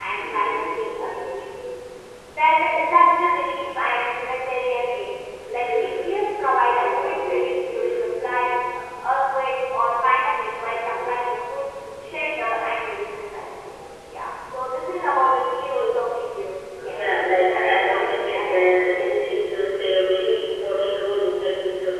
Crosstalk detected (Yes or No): Yes